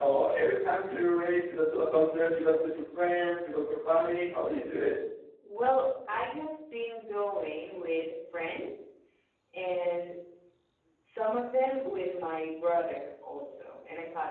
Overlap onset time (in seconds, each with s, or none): none